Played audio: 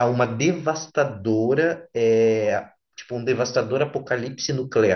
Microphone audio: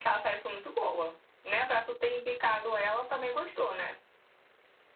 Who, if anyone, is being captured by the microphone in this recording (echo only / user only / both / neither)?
user only